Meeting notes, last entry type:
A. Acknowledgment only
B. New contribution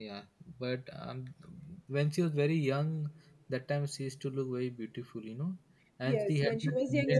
B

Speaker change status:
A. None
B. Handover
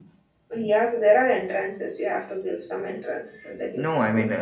B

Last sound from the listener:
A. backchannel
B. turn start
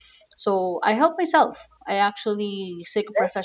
A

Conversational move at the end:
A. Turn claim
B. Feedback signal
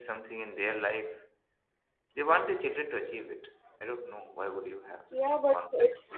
A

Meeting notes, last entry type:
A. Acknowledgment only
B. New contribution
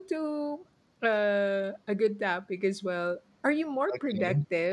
A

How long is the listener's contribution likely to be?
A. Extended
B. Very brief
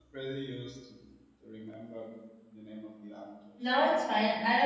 A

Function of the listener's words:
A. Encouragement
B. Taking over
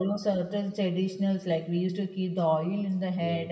A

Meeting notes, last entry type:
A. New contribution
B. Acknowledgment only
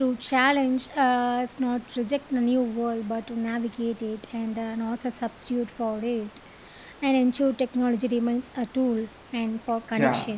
A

